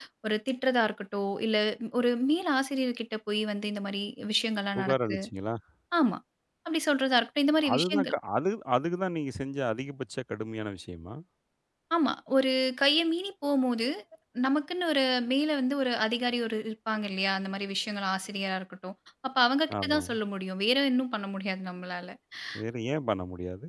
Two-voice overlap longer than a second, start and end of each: none

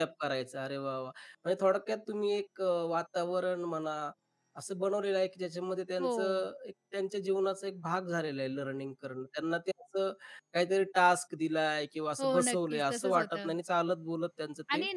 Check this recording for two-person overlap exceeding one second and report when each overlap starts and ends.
12.2-13.5

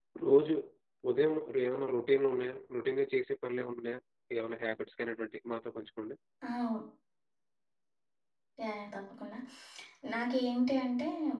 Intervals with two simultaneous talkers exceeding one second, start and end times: none

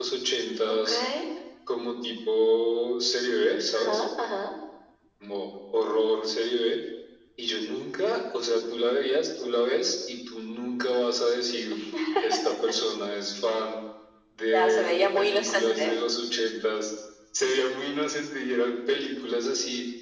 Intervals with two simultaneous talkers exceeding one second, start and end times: 14.5-15.9

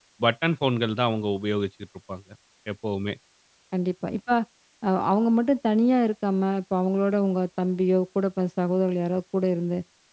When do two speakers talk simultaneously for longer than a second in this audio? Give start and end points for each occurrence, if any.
none

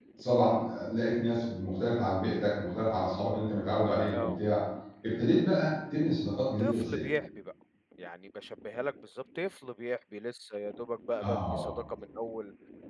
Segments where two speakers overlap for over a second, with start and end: none

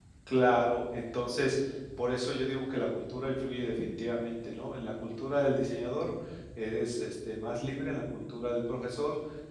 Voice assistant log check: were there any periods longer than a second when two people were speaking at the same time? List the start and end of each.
none

